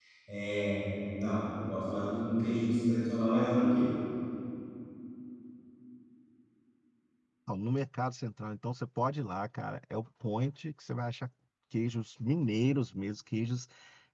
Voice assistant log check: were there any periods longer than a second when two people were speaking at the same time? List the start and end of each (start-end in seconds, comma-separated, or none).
none